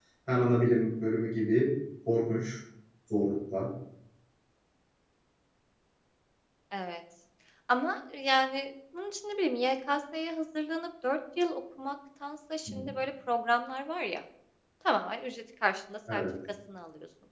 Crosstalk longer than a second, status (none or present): none